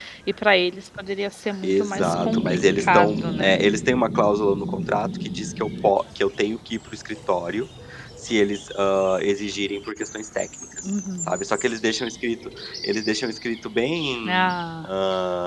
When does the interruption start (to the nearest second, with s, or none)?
2 s